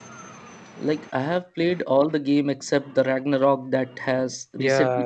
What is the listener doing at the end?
taking over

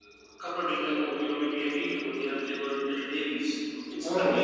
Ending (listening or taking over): listening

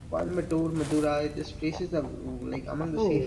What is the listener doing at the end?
taking over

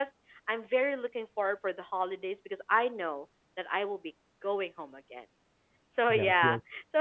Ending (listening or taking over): listening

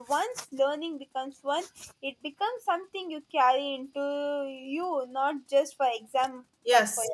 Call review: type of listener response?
taking over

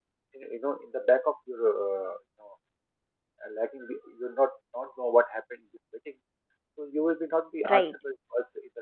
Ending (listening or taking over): listening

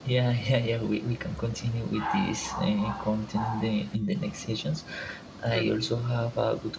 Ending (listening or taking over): listening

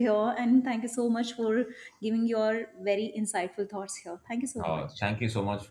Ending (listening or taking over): taking over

